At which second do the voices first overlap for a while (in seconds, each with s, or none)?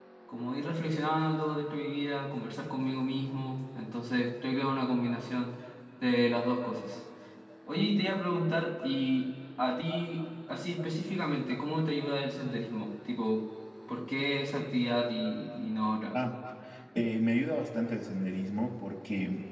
none